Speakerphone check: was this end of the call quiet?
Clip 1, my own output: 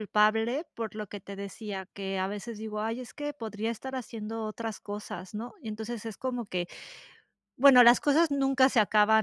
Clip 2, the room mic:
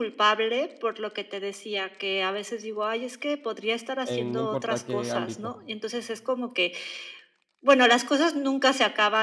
No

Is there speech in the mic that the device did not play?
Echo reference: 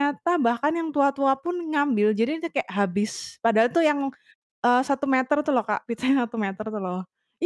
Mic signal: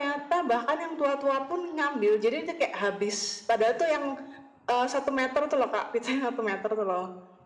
No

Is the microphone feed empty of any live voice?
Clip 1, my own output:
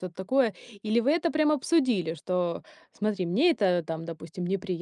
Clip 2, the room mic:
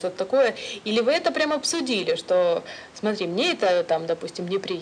Yes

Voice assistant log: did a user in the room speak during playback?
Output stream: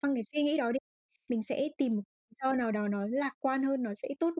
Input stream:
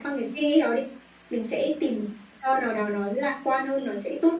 No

